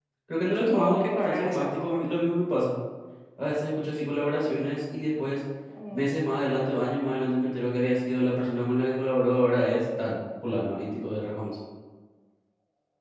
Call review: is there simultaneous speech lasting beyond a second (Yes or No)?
Yes